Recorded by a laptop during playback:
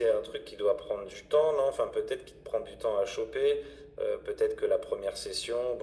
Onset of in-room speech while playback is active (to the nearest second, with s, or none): none